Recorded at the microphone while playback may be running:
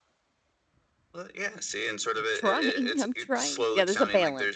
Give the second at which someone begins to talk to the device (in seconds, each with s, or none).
2.1 s